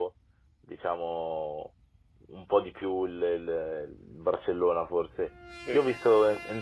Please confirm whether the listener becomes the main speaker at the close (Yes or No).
No